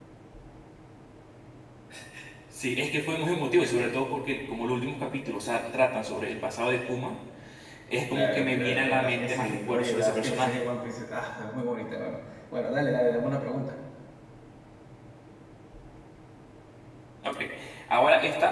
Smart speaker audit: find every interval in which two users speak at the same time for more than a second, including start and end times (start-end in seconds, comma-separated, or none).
8.1-10.6